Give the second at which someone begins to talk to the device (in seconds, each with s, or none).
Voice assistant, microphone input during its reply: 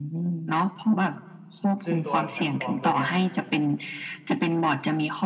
1.8 s